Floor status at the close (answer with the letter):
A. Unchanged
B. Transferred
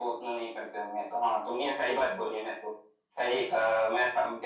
A